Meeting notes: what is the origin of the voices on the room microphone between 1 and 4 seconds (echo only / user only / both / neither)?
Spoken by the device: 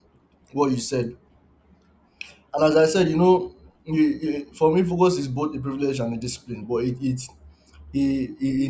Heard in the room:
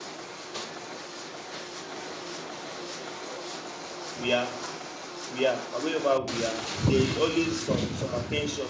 neither